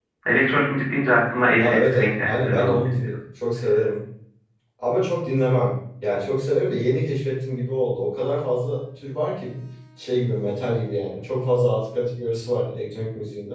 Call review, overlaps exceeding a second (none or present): present